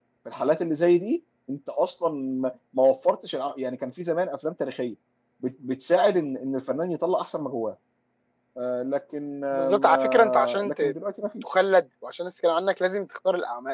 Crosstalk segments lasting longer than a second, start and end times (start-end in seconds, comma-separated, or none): 9.5-10.9